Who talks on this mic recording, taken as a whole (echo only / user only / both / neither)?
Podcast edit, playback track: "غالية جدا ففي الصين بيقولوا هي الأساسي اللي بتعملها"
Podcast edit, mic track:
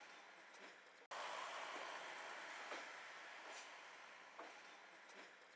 neither